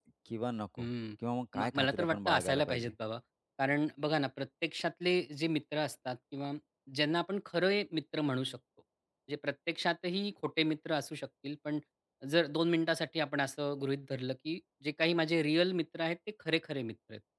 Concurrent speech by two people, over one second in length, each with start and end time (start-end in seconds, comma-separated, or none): 1.6-2.9